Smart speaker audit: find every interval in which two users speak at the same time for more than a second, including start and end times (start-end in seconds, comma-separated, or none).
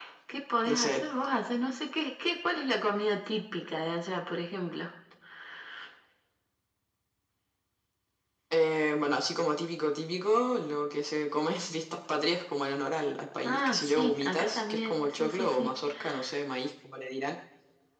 13.4-15.7